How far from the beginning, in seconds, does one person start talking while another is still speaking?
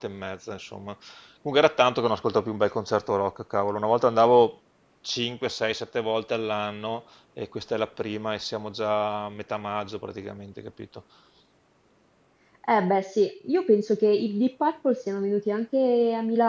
none

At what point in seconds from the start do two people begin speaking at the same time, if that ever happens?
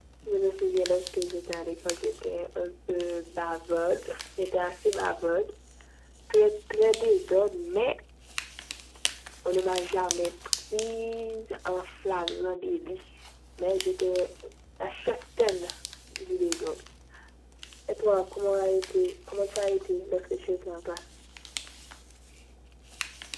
none

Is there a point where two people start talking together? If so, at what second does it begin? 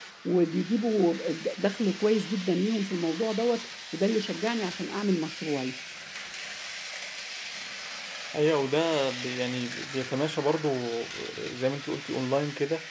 none

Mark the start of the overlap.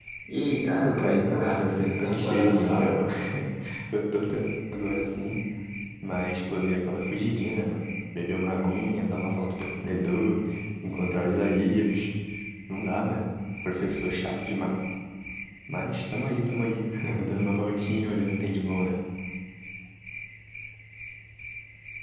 0.8 s

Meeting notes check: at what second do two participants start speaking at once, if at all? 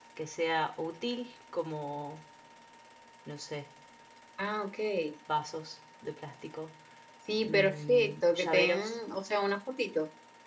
7.4 s

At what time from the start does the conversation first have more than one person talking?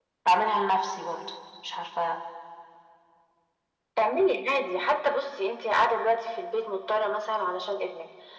none

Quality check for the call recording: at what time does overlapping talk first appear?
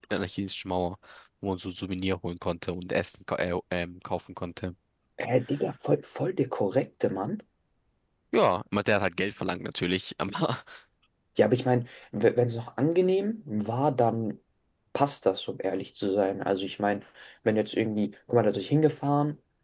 none

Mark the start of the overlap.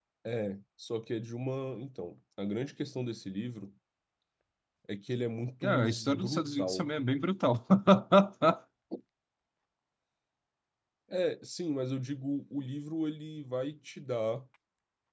5.6 s

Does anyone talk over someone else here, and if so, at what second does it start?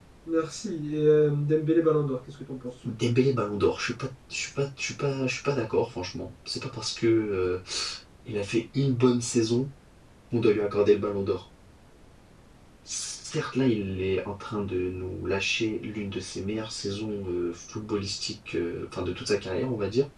none

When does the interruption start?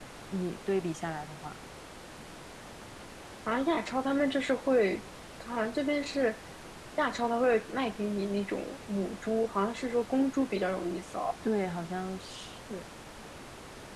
none

